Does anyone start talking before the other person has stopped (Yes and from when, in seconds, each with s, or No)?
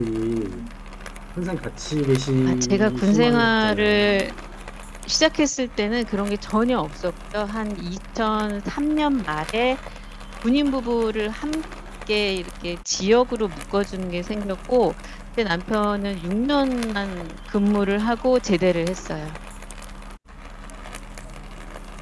Yes, from 2.5 s